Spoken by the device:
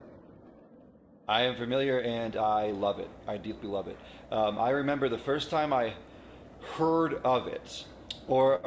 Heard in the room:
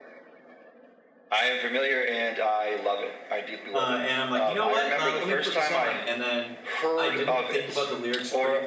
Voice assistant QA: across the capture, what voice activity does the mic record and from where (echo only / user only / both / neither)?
both